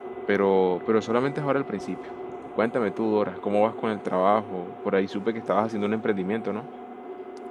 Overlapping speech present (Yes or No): No